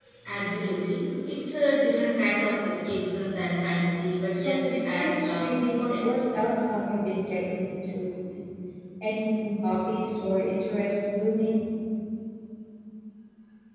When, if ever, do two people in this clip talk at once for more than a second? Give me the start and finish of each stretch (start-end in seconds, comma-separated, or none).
4.3-6.1